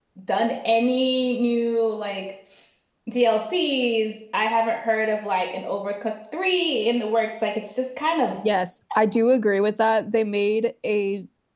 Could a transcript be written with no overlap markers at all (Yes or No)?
Yes